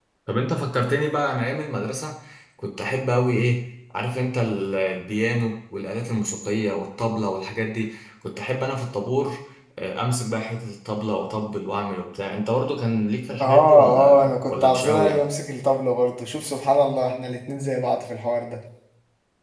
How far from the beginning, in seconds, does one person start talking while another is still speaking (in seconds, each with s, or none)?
13.4 s